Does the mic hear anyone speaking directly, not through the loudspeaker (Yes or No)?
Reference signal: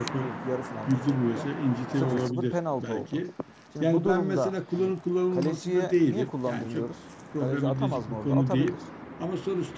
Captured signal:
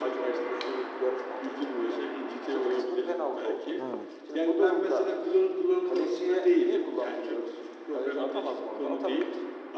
Yes